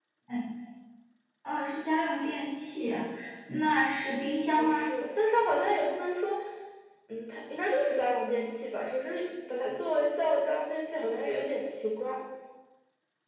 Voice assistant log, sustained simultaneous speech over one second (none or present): none